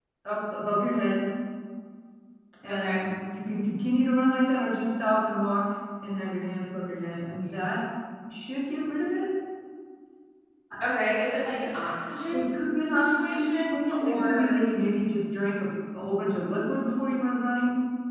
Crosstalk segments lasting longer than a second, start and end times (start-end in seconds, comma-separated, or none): 12.3-14.6